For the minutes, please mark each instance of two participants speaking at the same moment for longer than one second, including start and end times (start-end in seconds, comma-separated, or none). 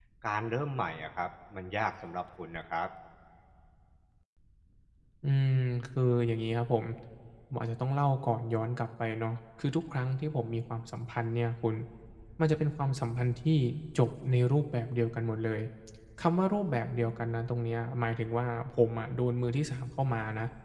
none